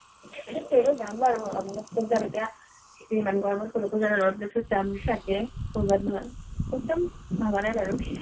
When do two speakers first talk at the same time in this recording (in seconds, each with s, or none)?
none